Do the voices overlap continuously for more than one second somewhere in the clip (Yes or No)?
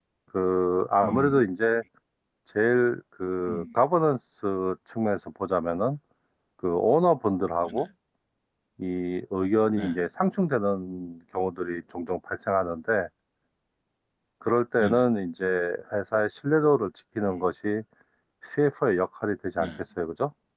No